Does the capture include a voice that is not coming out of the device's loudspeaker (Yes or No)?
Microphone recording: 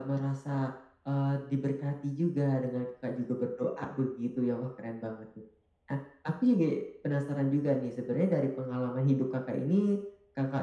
No